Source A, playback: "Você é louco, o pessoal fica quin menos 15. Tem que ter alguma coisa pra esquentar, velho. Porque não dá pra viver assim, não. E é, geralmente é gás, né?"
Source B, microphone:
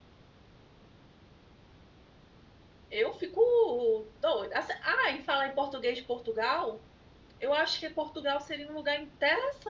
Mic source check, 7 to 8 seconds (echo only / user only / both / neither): user only